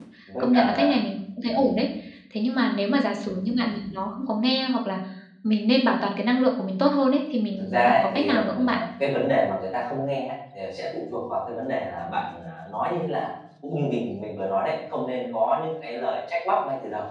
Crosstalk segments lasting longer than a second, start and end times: 7.6-8.8

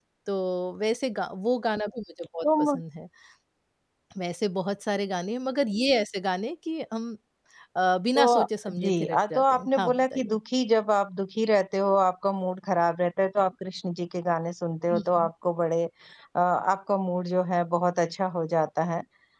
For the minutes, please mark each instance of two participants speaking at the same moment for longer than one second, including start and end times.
8.2-10.4

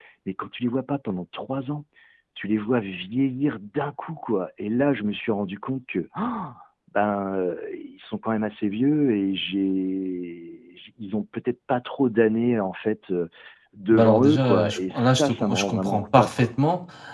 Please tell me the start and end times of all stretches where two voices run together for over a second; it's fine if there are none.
13.9-16.5

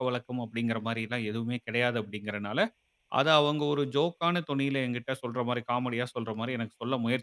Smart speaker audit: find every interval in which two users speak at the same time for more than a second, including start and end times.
none

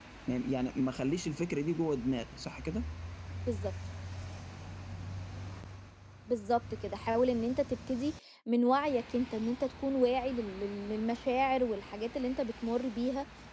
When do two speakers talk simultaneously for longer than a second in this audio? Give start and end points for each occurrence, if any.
none

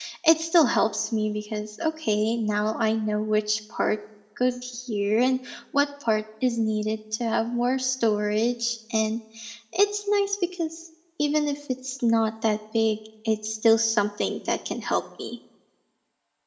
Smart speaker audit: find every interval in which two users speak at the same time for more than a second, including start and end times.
none

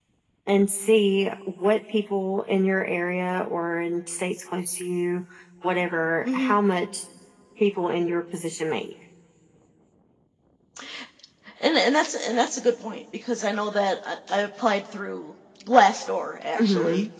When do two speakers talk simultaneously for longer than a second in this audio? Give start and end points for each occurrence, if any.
none

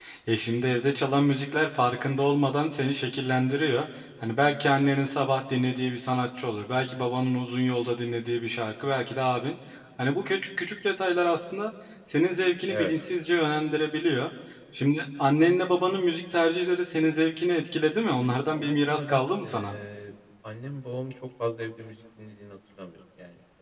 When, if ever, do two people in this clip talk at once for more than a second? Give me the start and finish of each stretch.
18.5-19.8

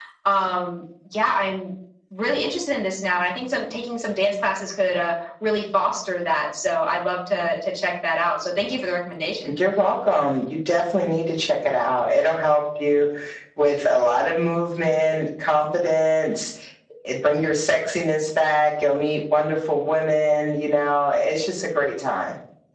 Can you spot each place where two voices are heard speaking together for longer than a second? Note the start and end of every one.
none

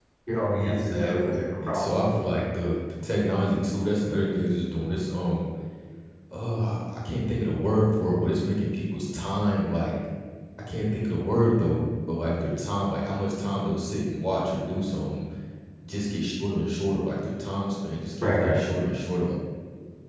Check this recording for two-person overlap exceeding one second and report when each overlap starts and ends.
0.6-1.9

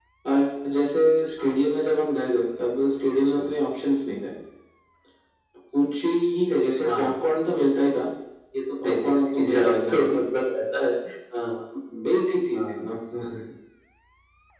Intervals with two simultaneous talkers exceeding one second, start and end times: 8.8-10.2

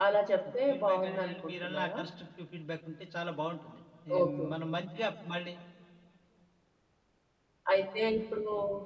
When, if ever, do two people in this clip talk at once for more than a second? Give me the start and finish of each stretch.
0.7-2.0

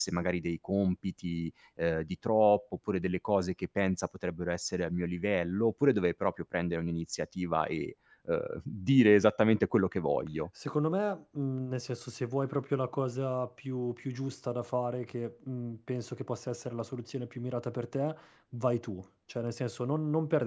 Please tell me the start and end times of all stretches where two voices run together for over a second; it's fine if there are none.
none

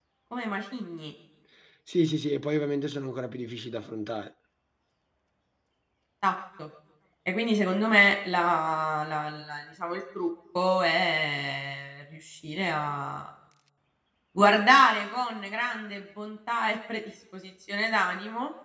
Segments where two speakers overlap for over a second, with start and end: none

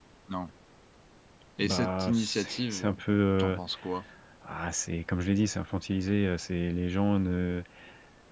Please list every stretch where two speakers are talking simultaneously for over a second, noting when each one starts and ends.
1.6-3.0

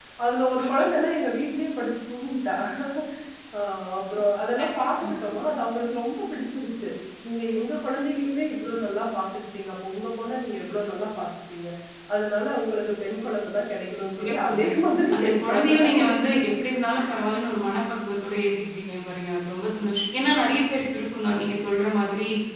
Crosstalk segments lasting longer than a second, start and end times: 15.1-16.4

